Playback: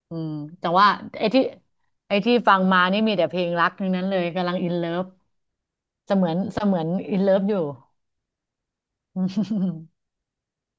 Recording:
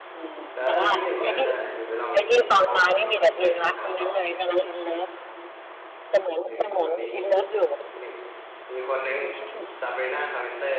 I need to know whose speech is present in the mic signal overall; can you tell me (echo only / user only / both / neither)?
both